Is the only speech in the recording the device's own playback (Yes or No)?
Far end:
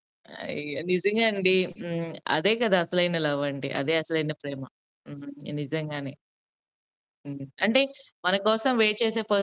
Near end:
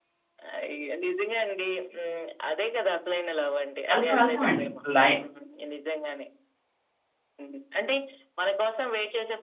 No